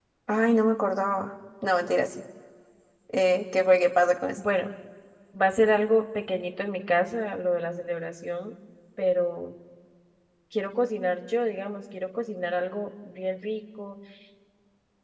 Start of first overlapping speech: none

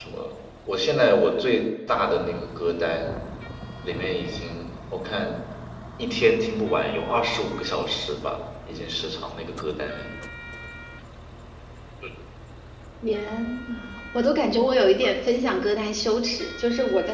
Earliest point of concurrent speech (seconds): none

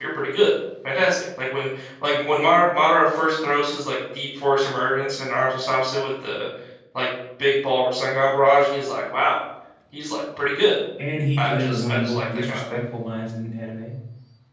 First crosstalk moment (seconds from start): 11.4 s

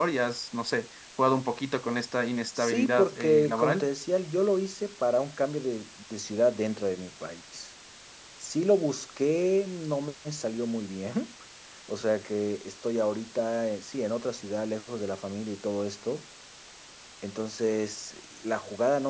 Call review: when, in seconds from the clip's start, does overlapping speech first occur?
2.5 s

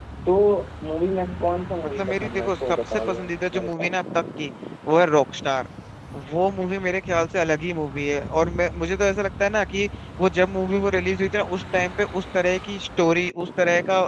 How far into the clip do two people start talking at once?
2.0 s

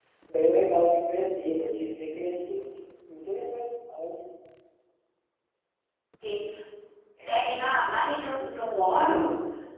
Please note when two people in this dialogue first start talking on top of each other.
none

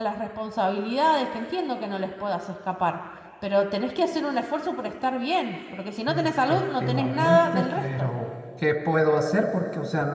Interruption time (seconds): 6.1 s

